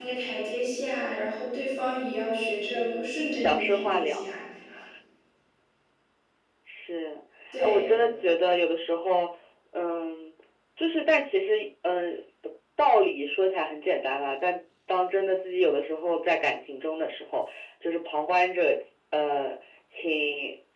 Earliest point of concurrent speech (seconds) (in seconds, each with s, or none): 2.7 s